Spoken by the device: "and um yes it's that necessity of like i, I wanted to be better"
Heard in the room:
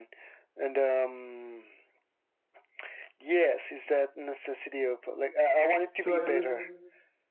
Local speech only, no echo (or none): so i guess